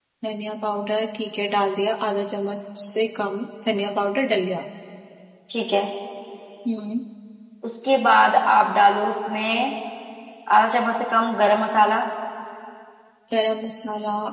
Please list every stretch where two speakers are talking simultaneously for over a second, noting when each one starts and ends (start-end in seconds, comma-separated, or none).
none